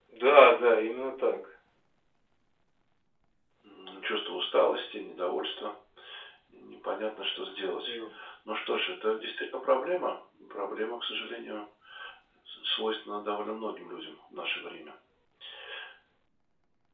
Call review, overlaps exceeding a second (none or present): none